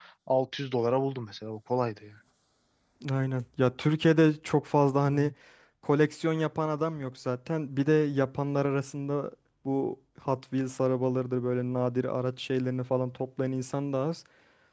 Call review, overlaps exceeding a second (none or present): none